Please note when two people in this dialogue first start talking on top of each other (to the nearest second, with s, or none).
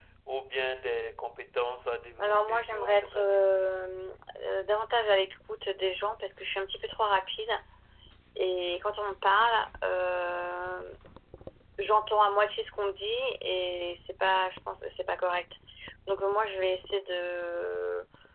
2 s